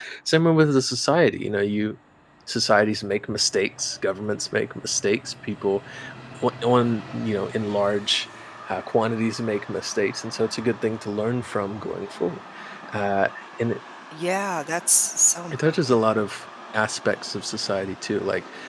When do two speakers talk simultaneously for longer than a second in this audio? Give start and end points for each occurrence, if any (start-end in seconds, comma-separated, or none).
none